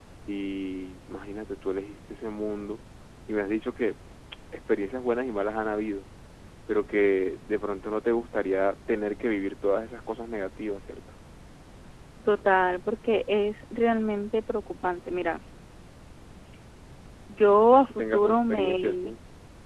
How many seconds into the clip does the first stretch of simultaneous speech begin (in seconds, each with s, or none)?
17.5 s